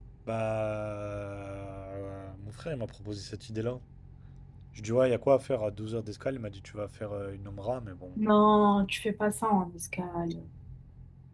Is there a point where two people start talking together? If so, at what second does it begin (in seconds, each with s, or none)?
none